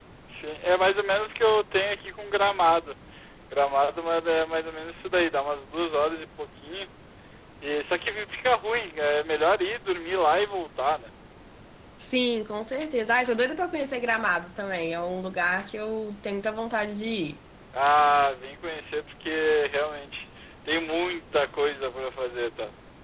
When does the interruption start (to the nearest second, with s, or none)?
none